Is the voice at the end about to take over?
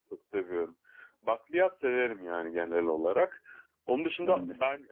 No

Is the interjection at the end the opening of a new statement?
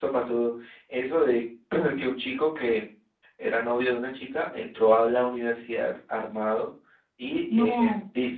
No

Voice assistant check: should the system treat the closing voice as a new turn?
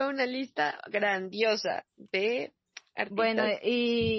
Yes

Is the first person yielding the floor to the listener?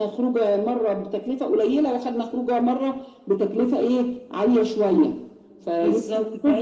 Yes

